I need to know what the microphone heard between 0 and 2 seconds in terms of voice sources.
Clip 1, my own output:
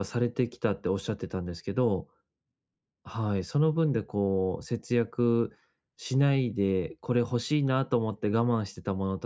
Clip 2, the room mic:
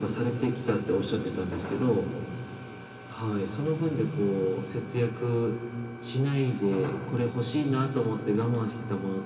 echo only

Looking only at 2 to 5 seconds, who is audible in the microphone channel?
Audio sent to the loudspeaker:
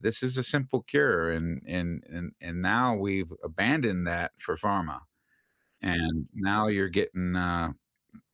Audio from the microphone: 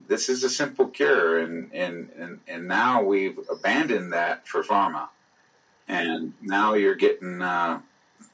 echo only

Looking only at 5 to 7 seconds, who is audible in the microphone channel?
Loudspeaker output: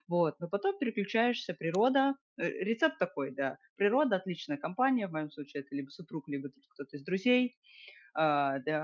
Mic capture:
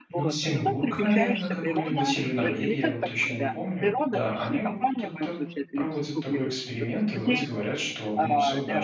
both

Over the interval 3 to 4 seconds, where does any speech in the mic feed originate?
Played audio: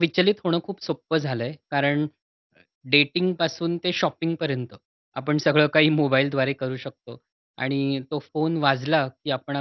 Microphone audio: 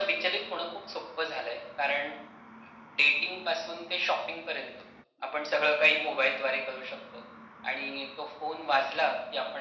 echo only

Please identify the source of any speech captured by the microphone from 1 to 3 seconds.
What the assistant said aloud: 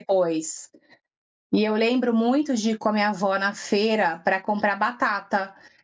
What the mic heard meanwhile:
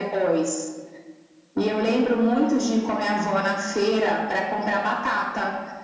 echo only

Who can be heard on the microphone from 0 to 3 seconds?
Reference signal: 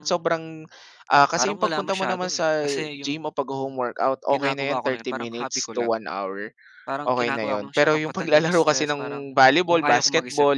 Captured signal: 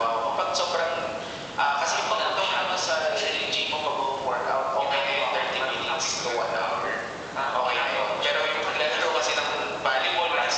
echo only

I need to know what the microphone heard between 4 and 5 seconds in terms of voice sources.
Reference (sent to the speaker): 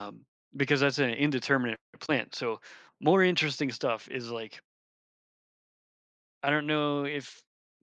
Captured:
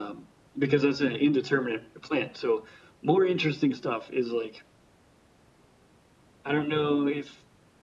echo only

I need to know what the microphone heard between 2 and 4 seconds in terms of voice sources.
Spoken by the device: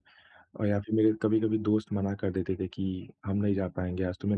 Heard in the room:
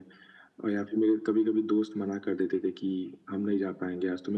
echo only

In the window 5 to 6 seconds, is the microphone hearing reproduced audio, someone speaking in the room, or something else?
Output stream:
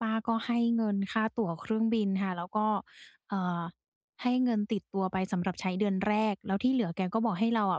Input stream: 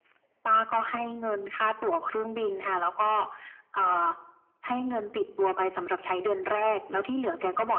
echo only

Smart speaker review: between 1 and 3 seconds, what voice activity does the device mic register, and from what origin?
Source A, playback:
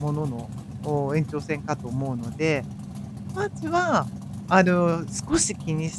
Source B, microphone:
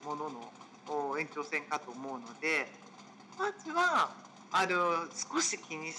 echo only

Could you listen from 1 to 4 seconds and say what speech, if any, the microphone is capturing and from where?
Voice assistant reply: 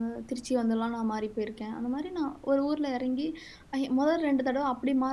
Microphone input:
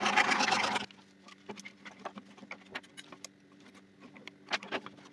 neither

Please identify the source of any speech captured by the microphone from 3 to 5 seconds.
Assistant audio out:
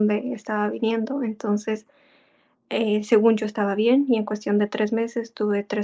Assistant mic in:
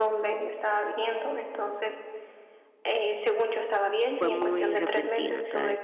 both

